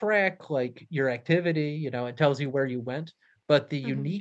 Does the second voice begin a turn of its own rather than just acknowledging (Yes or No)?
No